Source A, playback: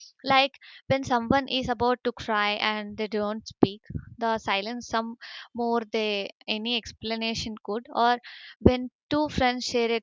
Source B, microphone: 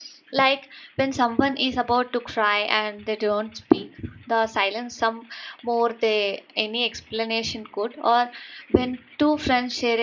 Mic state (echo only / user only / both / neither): echo only